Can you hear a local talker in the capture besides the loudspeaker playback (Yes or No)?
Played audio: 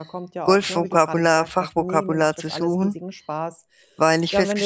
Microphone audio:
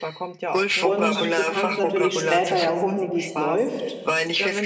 Yes